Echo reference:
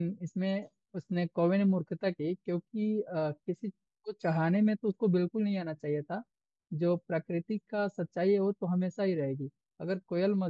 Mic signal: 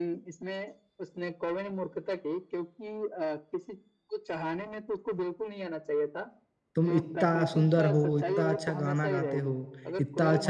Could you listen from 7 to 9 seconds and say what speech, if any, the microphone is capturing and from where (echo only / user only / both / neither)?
both